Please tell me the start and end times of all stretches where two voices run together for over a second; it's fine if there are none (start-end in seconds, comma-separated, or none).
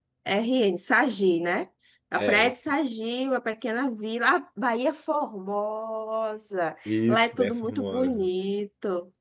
6.8-8.3